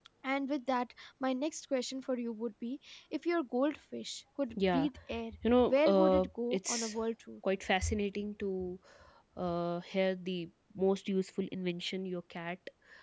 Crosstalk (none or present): present